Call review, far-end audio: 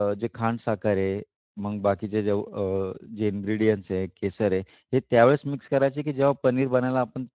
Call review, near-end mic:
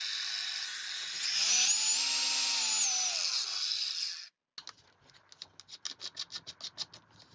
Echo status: none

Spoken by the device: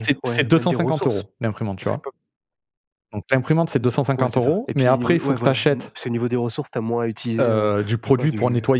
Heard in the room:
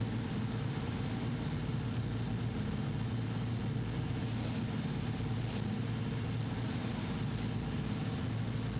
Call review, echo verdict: none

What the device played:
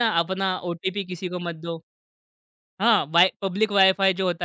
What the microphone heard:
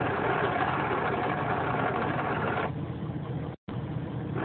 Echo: none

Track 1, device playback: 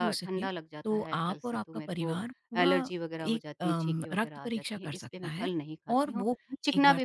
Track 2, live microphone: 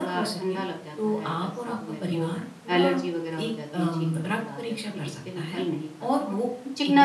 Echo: present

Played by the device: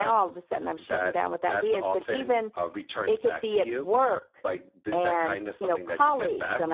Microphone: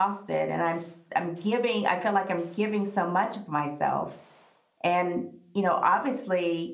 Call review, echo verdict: none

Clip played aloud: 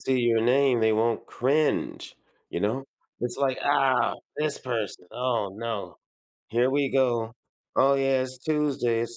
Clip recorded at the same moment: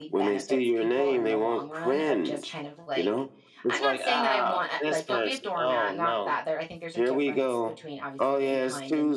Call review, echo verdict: present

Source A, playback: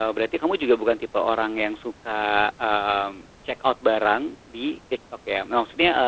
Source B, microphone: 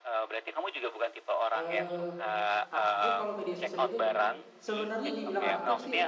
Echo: present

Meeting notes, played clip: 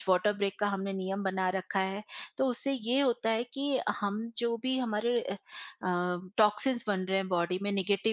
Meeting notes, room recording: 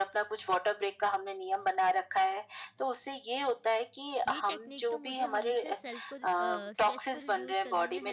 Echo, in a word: present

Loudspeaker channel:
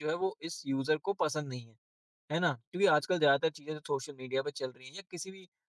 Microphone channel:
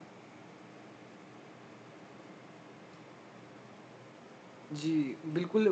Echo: none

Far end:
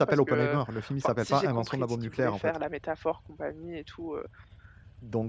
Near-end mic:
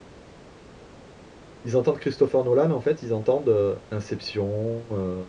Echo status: none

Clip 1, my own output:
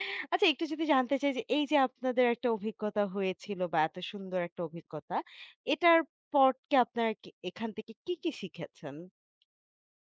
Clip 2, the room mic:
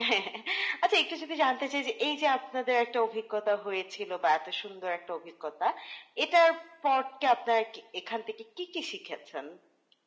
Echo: present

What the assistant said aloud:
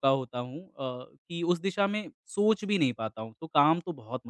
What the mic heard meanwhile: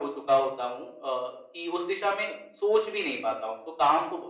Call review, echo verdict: present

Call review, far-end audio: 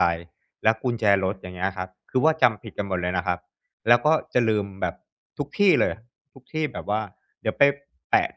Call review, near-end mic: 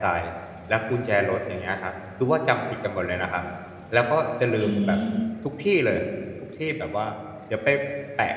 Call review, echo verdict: present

